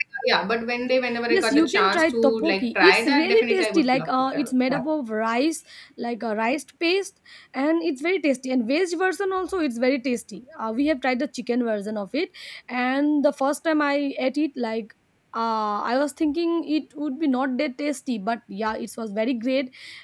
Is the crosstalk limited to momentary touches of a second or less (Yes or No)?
No